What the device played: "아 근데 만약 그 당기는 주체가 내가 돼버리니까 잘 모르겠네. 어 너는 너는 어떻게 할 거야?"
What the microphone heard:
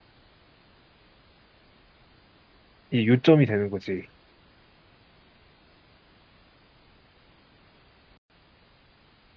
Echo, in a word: none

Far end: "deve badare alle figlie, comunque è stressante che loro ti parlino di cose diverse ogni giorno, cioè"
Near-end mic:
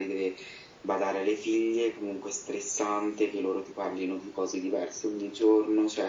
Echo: present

